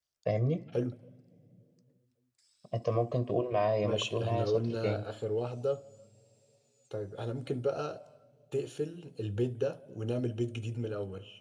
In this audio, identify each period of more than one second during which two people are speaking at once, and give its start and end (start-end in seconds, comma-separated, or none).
3.8-5.0